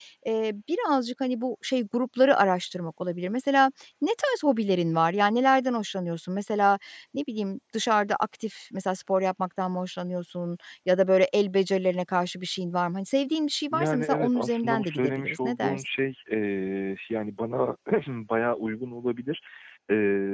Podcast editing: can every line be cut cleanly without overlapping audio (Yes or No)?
No